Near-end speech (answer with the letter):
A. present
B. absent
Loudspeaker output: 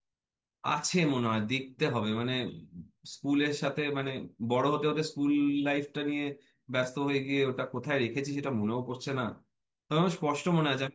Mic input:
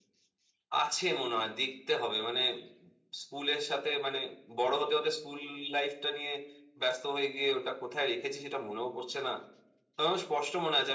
B